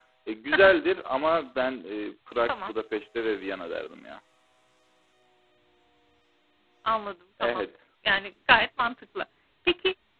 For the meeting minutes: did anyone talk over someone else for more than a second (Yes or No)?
No